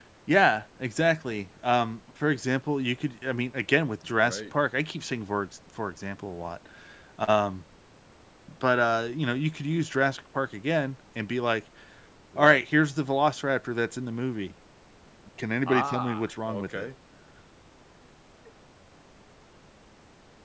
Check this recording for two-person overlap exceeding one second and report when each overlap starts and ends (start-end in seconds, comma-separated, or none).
15.7-16.9